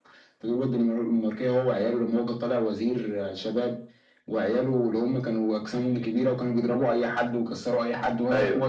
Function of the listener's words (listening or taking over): listening